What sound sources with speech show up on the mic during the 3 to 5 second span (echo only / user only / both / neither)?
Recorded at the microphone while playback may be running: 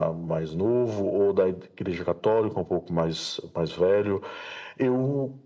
echo only